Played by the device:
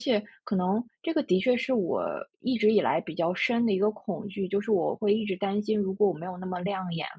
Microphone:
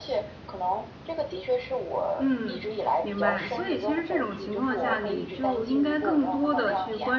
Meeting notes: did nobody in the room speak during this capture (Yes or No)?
No